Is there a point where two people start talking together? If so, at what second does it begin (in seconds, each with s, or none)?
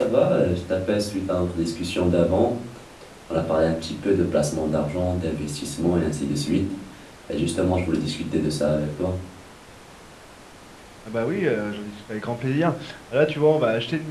none